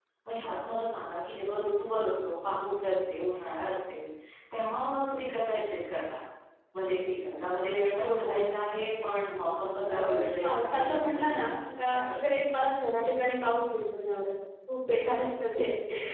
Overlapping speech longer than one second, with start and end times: 10.4-12.3

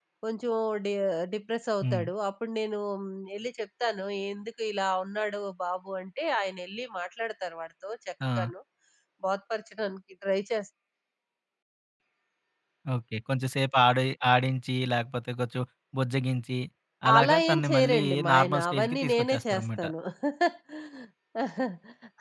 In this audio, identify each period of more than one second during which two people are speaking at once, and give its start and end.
17.2-19.8

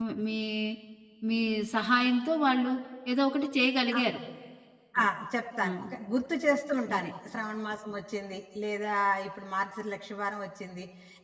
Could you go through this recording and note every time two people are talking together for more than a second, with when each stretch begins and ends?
none

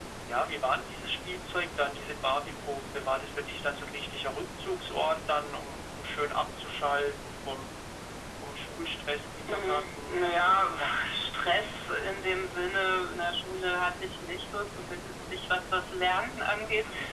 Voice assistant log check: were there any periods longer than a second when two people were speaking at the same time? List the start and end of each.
9.5-10.9

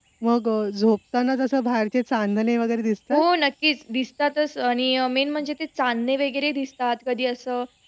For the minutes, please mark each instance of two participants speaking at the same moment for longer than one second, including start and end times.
none

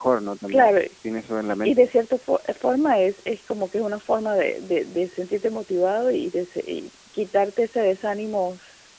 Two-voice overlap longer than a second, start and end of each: none

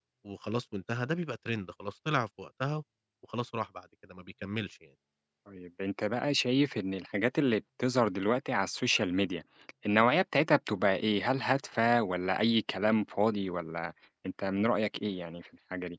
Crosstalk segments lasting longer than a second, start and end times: none

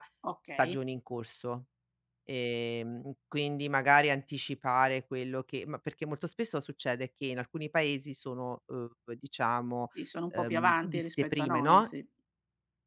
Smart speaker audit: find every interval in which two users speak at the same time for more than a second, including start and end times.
10.3-11.8

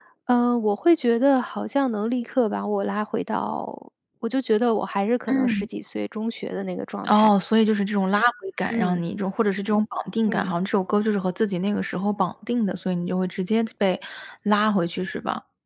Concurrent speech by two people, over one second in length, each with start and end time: none

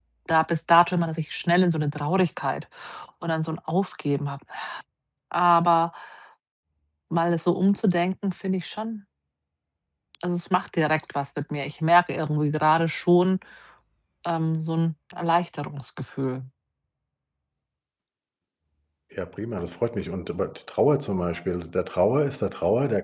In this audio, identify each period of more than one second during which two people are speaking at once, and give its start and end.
none

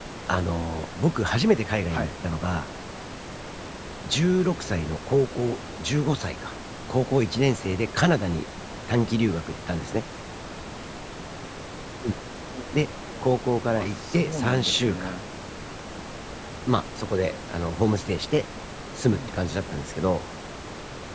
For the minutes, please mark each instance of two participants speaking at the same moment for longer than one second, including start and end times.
13.8-15.2

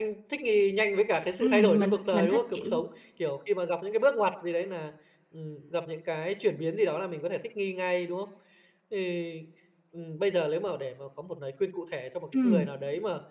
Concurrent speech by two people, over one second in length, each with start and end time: 1.4-2.8

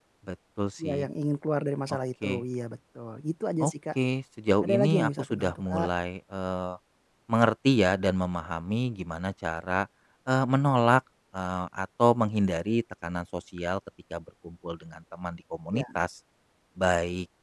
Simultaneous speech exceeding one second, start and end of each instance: 4.6-5.9

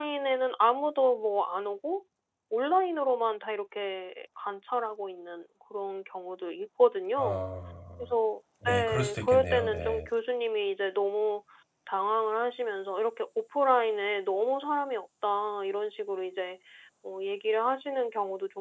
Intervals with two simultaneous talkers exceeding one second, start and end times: 8.7-10.0

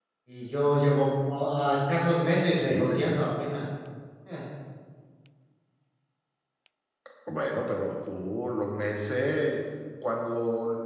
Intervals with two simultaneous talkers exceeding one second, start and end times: none

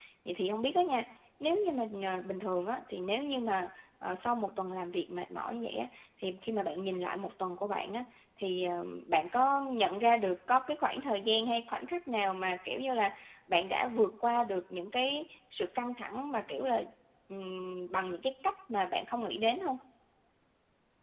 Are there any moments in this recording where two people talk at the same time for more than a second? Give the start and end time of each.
none

